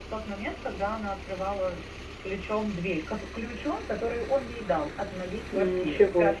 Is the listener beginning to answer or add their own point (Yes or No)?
Yes